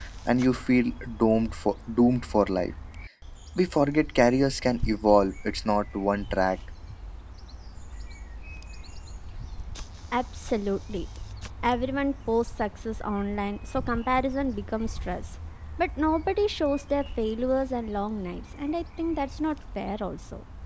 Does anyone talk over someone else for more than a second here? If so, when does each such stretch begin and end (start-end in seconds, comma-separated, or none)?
none